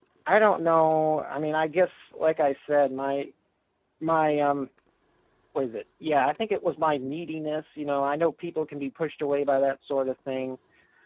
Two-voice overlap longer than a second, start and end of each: none

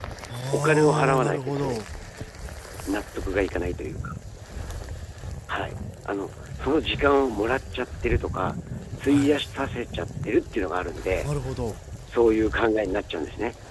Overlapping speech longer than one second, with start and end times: 0.5-1.8

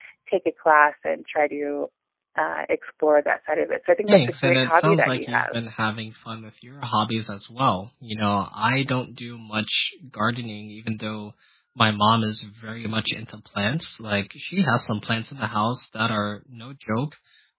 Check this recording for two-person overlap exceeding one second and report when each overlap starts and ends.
4.1-5.6

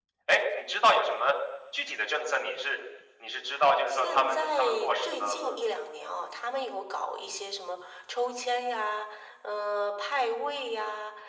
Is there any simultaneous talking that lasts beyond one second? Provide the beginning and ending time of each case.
3.9-5.6

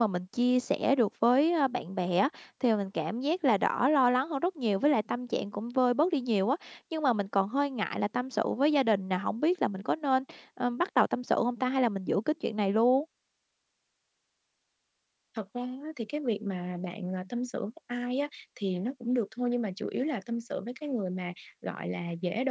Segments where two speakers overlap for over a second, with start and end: none

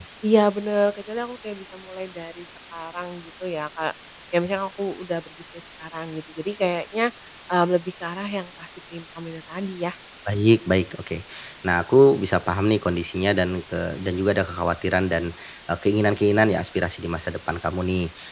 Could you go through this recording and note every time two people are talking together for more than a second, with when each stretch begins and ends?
none

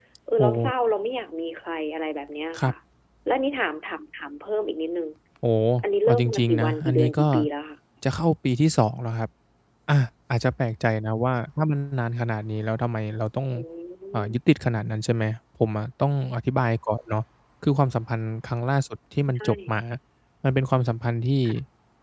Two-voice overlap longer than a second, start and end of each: 6.1-7.3

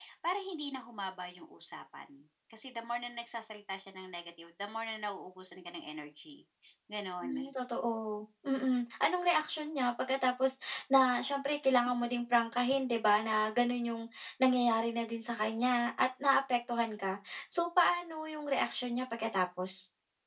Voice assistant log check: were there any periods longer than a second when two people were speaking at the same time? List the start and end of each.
none

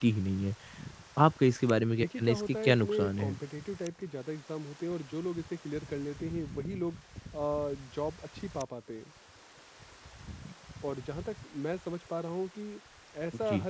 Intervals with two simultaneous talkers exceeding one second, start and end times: 2.0-3.3

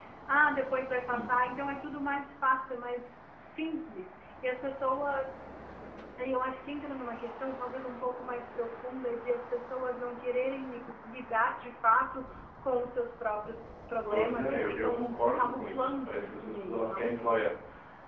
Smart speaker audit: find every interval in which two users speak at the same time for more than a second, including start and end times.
14.1-17.1

